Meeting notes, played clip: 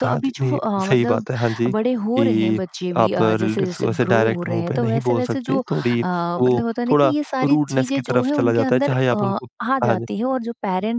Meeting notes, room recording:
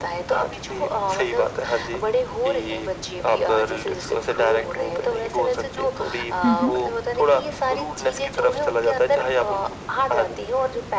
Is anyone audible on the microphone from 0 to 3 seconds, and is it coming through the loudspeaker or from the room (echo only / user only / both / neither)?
echo only